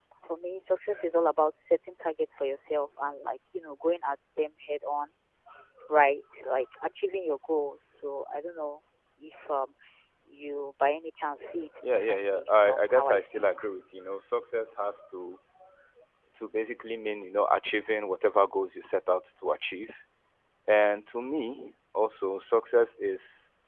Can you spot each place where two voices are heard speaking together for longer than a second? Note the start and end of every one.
11.8-13.5

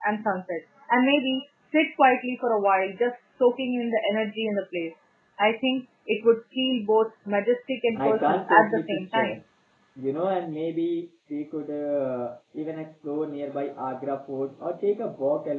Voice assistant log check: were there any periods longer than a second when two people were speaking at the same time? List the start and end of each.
7.9-9.3

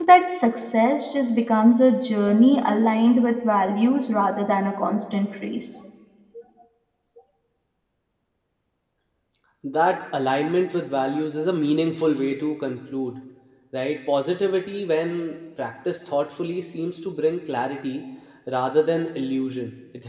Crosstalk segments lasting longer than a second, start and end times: none

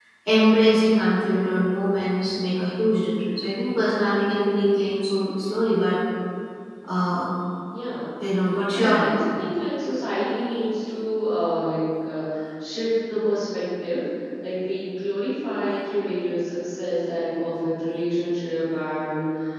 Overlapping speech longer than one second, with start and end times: none

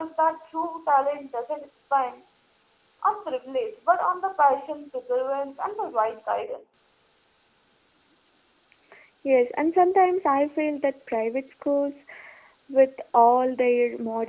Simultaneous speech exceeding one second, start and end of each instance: none

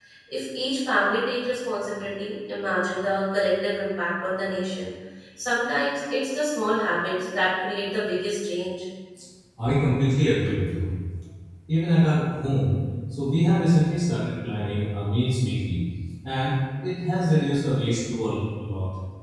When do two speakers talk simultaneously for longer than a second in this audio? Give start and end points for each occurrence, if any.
none

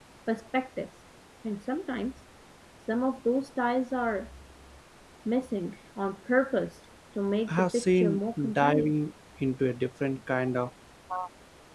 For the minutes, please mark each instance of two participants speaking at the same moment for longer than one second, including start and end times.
7.5-8.9

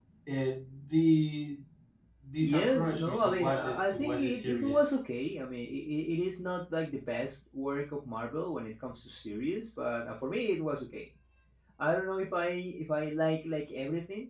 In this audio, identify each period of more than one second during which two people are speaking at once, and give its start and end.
2.4-4.9

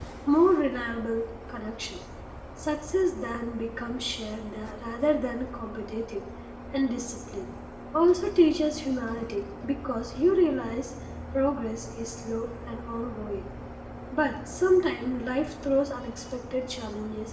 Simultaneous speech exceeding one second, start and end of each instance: none

